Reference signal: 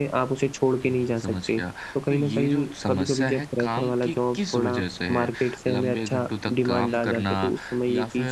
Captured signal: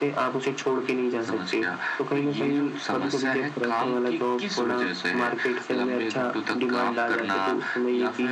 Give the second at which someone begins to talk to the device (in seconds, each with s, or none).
none